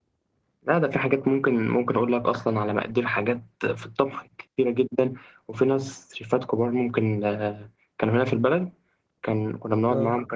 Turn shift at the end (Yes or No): No